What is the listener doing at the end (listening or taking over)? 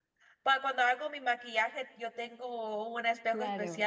listening